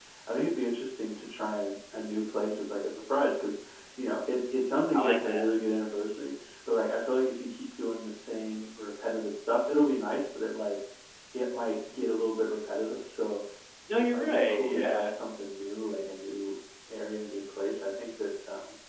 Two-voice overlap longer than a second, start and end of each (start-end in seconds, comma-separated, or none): 13.9-15.1